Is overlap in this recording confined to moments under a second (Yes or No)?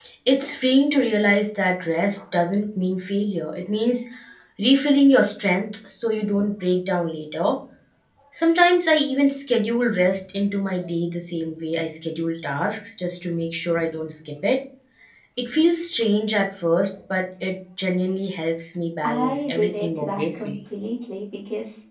No